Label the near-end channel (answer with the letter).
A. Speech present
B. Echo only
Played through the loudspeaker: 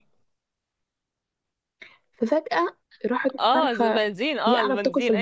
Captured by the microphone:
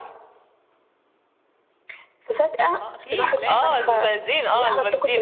A